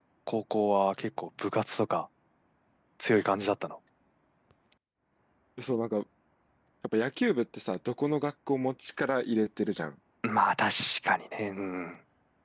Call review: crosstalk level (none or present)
none